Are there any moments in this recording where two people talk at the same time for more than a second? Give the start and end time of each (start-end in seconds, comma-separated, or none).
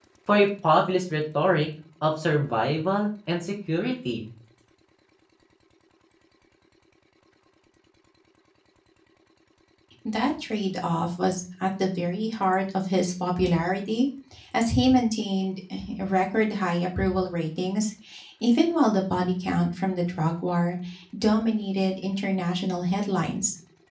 none